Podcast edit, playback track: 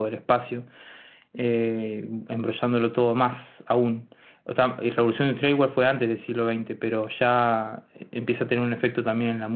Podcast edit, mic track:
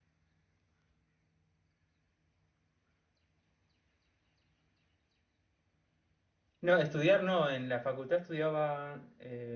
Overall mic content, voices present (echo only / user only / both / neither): user only